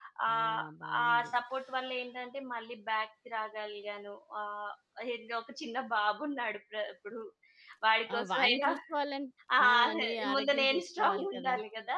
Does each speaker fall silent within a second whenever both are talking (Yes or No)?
No